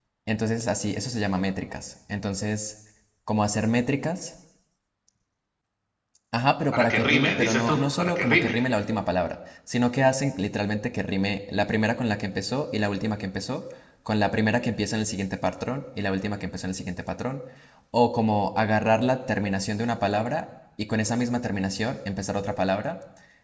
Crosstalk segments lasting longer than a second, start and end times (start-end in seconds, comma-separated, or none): 6.7-8.5